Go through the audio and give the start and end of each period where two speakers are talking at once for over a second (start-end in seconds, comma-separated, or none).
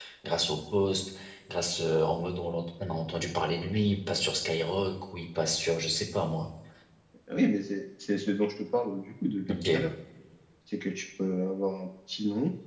none